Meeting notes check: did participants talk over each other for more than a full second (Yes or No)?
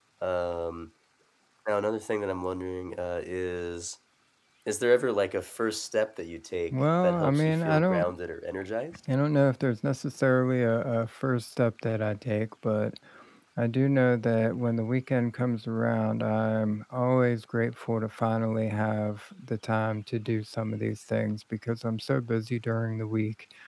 Yes